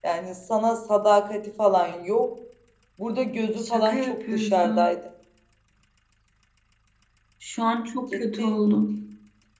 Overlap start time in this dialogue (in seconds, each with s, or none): 3.6 s